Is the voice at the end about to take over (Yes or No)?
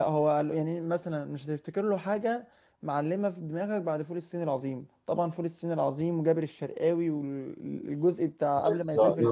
Yes